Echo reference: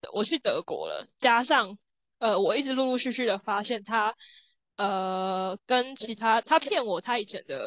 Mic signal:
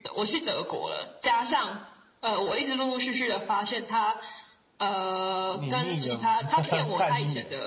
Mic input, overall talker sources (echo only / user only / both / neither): both